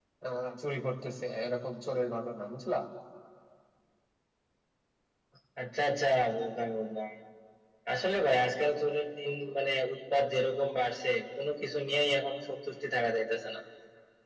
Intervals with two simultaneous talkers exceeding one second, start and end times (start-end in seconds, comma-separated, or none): none